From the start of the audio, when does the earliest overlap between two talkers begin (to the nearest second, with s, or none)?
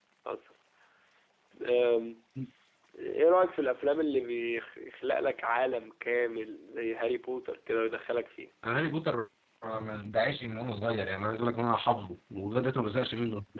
none